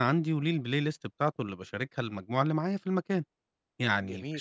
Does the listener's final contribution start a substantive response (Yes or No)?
No